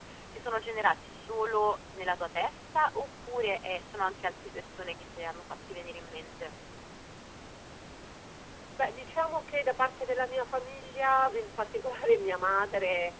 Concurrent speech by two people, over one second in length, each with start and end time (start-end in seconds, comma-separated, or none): none